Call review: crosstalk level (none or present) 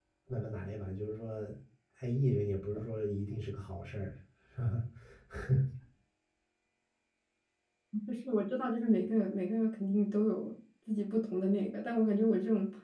none